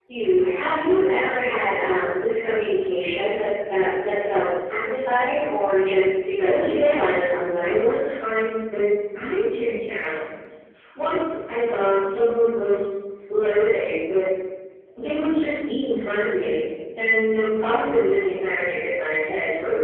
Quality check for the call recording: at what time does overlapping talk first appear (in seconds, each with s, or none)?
6.4 s